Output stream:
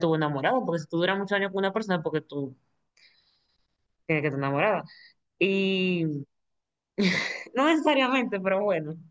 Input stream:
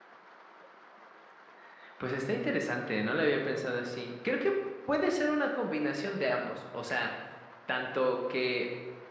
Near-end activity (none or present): present